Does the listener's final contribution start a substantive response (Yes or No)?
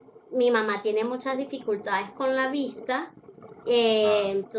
No